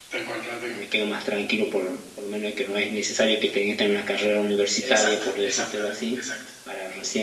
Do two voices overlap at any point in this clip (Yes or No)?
Yes